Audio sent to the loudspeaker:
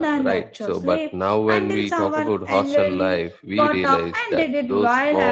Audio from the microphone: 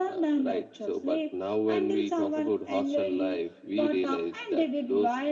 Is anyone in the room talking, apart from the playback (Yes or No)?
No